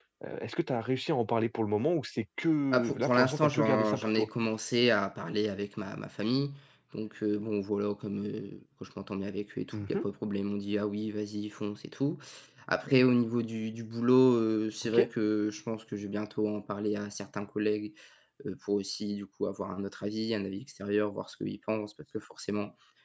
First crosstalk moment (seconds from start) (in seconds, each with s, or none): 2.7 s